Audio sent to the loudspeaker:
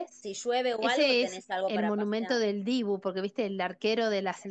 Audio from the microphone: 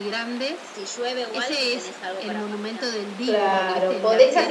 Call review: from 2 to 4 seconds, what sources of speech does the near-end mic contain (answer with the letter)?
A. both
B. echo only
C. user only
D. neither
A